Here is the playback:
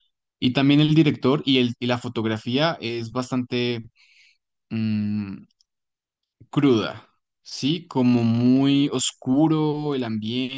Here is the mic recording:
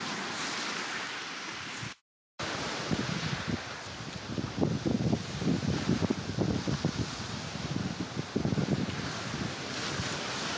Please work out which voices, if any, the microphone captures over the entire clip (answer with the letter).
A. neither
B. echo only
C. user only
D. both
A